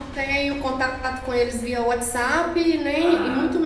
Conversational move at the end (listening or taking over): listening